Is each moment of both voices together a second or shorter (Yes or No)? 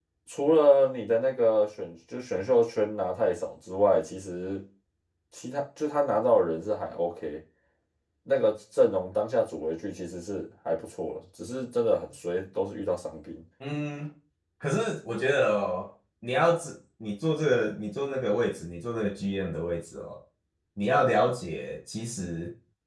Yes